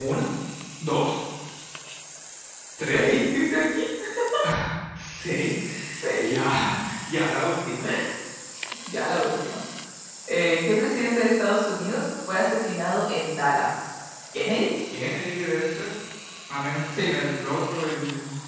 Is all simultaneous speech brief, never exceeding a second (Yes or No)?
Yes